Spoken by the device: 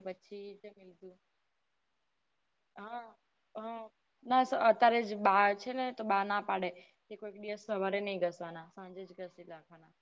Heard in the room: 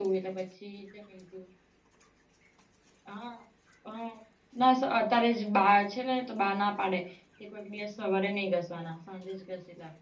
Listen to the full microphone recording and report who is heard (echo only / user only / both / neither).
echo only